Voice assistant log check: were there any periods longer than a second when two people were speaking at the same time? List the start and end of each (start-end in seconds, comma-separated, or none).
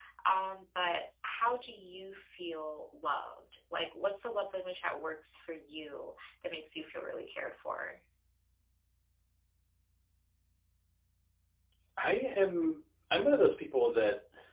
none